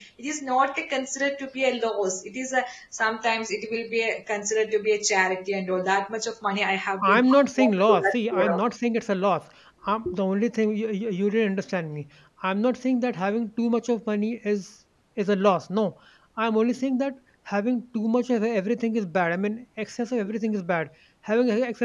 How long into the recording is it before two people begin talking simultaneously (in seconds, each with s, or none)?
7.0 s